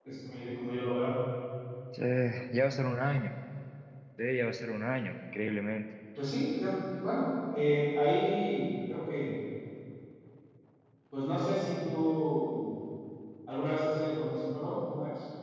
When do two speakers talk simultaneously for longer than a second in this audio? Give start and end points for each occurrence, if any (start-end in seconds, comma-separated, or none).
none